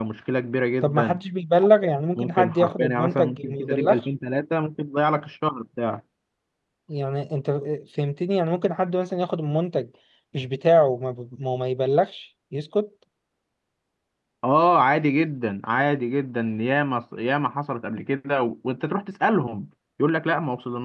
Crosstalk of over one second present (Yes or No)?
Yes